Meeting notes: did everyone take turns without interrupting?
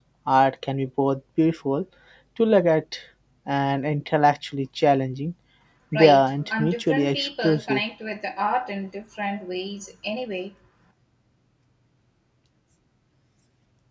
No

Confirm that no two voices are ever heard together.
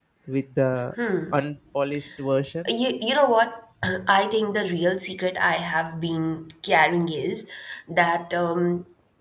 Yes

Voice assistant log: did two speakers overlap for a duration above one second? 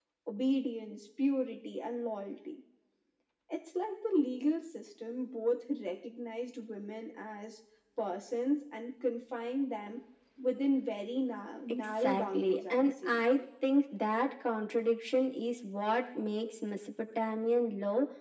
Yes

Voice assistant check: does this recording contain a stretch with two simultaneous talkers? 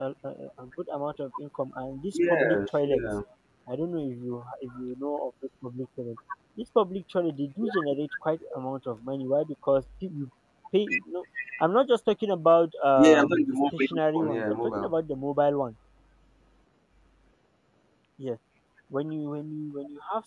Yes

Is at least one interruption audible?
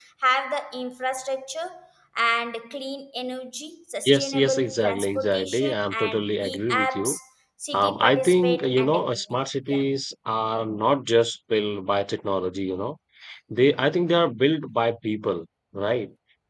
Yes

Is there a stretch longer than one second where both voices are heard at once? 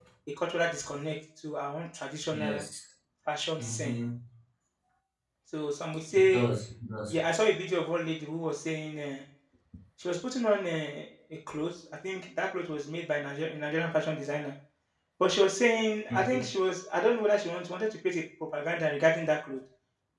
No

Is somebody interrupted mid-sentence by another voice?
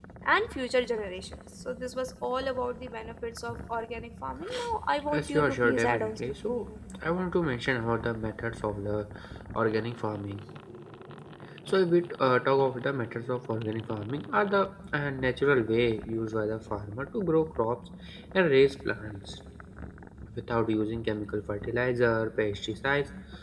Yes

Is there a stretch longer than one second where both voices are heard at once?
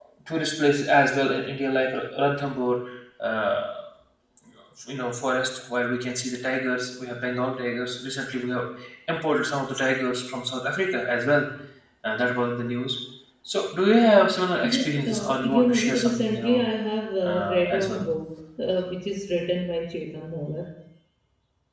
Yes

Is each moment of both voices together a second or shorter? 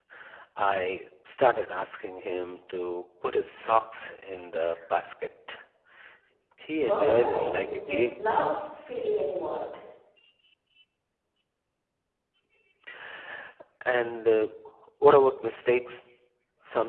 No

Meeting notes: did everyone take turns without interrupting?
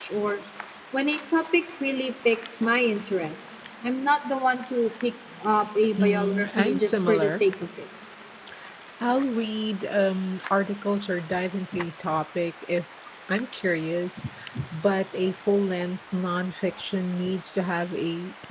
No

